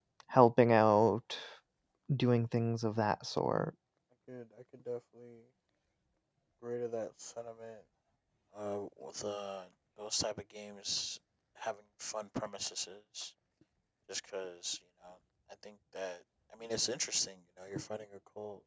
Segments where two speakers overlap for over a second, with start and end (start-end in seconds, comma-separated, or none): none